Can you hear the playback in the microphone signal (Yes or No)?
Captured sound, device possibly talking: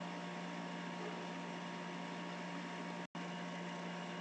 No